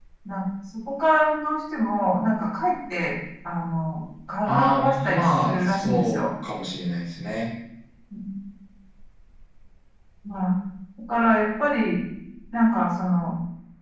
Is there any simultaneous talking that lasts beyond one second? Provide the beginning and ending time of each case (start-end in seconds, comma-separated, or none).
4.5-6.2